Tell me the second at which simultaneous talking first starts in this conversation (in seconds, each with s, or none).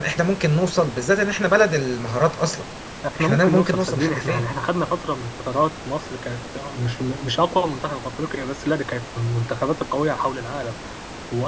3.2 s